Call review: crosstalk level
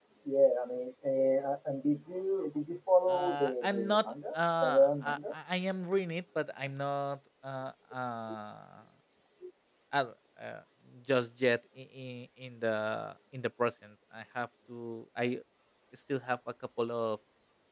present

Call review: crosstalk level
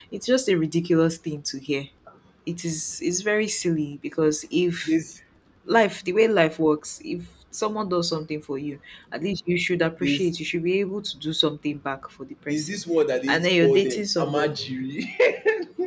present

